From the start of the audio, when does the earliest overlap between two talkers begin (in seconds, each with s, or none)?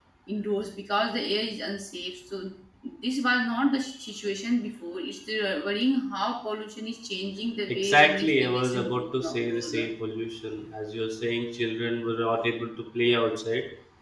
7.7 s